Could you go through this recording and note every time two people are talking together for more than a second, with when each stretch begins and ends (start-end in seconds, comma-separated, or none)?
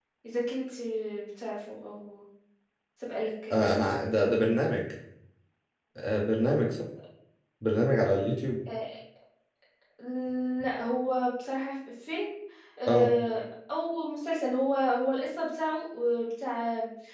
none